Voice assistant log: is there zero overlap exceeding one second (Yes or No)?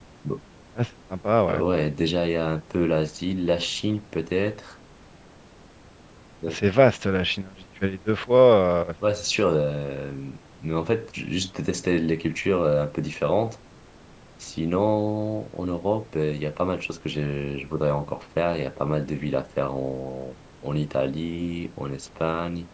Yes